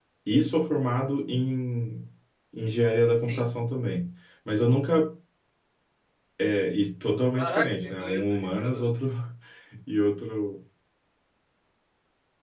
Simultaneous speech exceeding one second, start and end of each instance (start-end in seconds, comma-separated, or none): 7.4-8.8